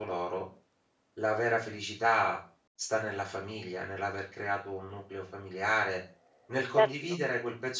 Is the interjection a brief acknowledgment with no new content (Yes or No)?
Yes